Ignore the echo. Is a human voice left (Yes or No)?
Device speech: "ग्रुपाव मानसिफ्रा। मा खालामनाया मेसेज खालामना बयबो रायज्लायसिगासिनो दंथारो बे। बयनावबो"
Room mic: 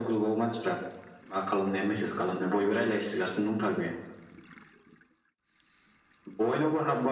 No